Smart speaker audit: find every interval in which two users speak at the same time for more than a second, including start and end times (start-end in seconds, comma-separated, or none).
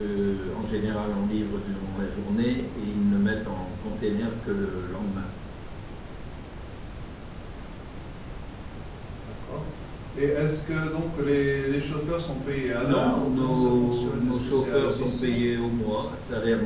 12.8-15.4